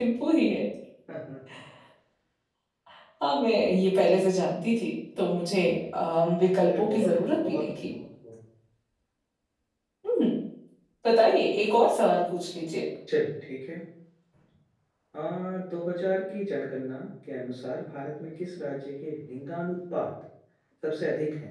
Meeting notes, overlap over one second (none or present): present